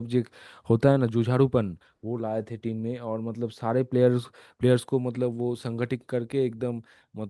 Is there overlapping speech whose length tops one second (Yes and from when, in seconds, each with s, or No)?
No